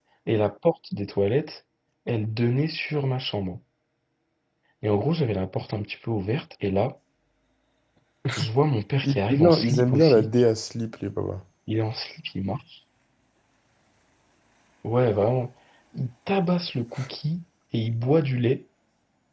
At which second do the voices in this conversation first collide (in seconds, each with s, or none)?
9.0 s